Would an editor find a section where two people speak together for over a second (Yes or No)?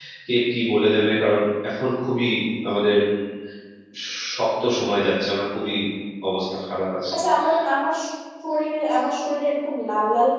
No